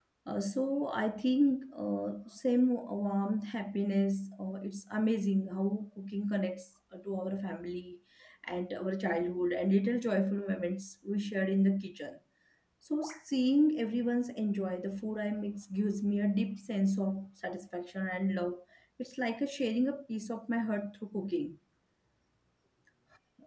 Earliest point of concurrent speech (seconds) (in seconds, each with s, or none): none